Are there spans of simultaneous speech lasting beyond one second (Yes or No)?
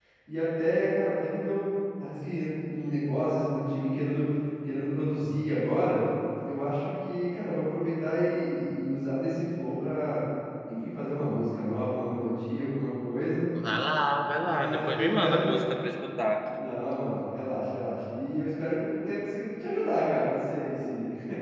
Yes